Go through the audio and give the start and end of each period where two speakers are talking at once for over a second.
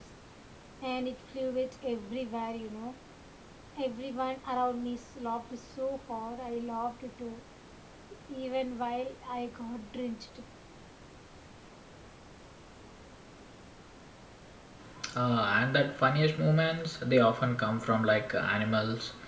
none

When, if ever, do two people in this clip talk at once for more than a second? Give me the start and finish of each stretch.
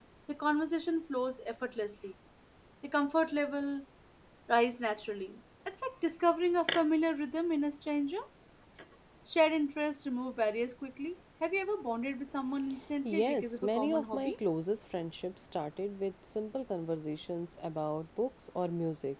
13.1-14.4

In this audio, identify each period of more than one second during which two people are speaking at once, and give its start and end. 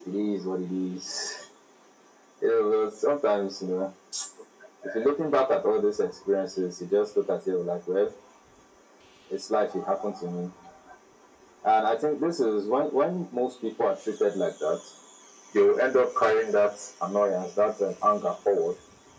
none

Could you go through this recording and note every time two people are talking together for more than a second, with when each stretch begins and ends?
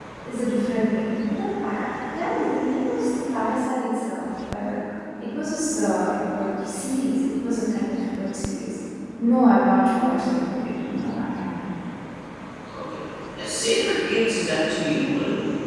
none

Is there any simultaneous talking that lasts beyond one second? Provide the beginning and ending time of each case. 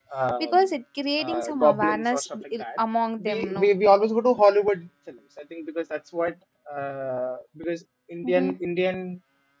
1.2-2.8

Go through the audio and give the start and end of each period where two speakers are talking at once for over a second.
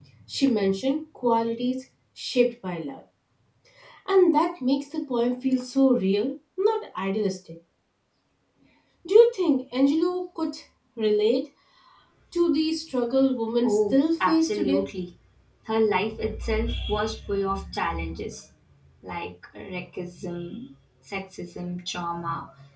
13.6-14.8

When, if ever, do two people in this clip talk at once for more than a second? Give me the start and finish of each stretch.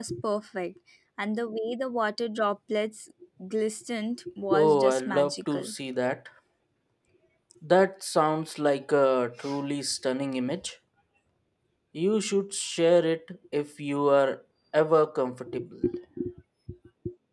4.5-5.7

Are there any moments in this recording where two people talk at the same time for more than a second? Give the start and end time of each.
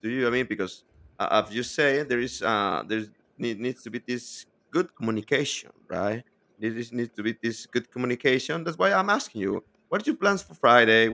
none

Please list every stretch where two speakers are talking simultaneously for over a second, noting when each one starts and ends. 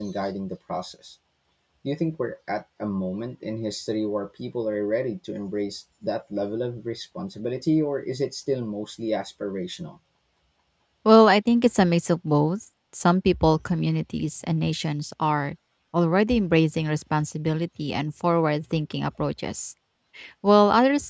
none

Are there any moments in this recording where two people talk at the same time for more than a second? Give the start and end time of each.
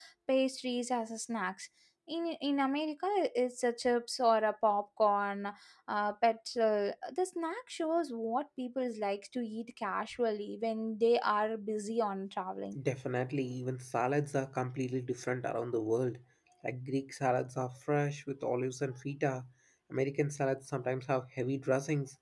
none

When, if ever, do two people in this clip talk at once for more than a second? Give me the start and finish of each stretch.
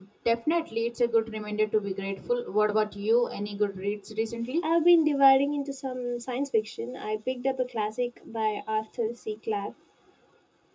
none

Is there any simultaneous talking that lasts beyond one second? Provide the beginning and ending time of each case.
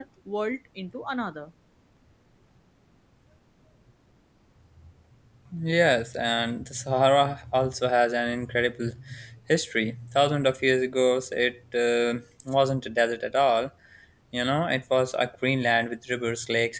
none

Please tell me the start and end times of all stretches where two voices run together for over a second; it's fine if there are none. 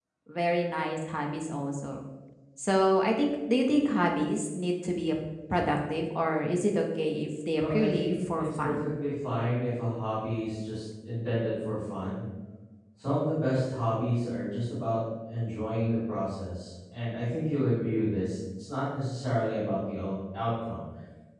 7.5-8.9

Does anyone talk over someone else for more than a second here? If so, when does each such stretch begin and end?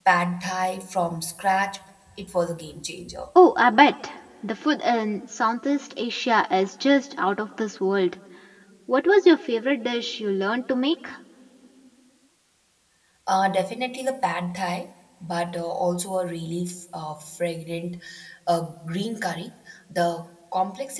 none

